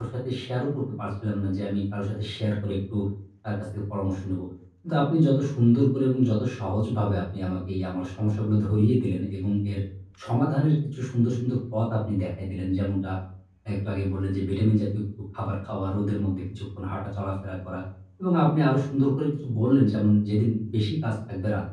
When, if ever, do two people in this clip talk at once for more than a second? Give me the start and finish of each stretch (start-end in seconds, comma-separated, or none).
none